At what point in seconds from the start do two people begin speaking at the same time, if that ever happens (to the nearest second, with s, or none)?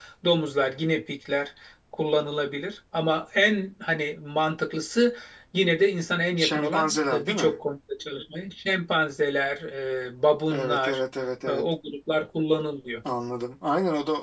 6 s